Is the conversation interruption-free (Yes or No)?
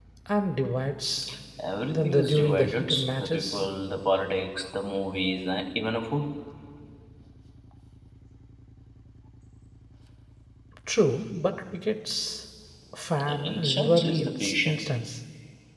No